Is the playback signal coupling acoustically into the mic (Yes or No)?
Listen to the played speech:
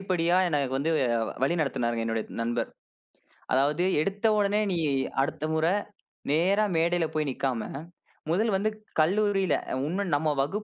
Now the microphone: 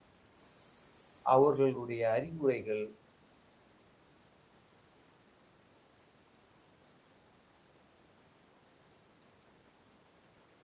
No